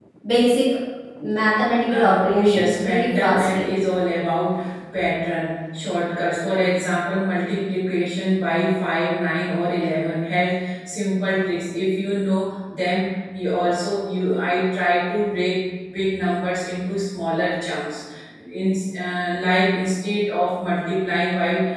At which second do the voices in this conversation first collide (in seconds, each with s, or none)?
1.9 s